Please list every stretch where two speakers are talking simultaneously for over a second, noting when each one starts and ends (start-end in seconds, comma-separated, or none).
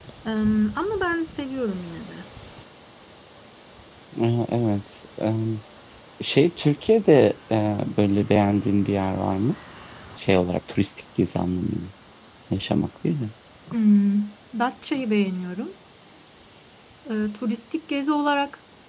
none